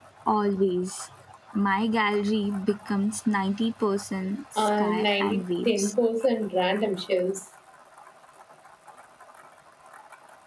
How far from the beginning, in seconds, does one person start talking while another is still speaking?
4.6 s

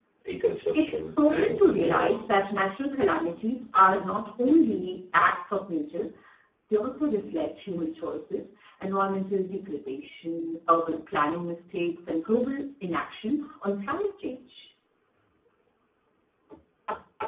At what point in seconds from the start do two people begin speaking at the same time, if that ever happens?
0.7 s

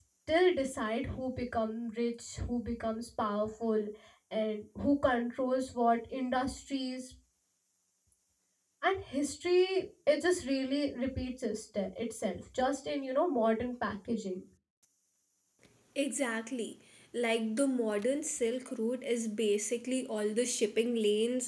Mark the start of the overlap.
none

